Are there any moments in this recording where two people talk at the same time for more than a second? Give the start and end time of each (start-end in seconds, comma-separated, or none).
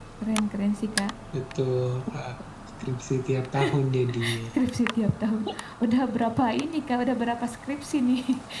none